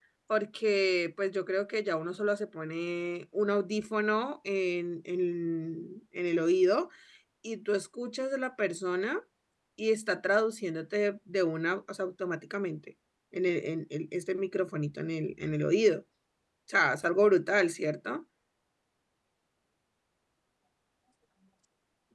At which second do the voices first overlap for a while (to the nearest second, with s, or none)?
none